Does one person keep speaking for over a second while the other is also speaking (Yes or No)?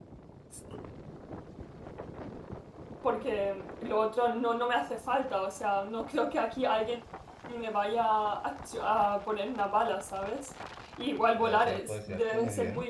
Yes